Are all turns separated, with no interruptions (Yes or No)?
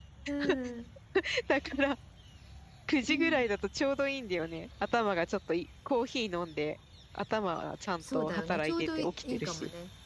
No